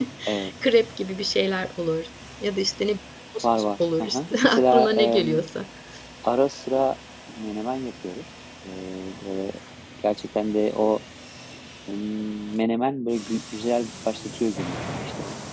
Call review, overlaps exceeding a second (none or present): present